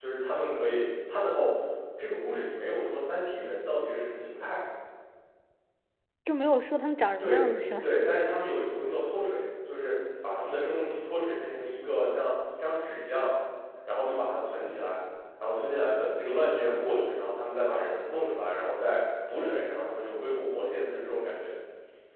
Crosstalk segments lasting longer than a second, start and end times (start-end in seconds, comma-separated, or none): none